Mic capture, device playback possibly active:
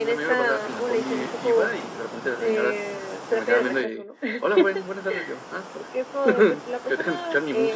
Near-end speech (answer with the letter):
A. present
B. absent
B